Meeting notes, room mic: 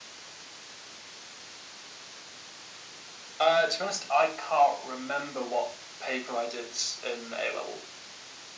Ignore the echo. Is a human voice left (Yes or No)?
No